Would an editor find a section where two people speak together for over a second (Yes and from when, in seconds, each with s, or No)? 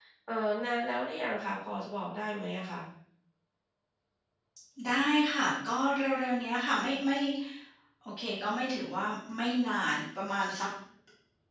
No